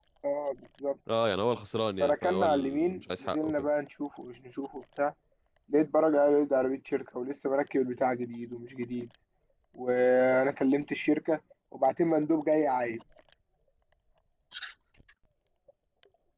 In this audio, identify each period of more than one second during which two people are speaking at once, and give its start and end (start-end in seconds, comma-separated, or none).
2.0-3.5